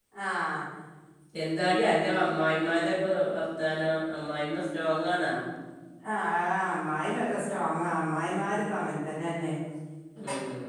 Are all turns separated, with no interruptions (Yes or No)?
Yes